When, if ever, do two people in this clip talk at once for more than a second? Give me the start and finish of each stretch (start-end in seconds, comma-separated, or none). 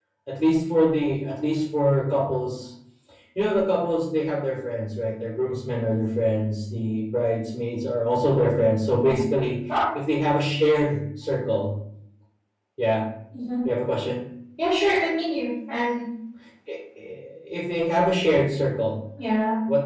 none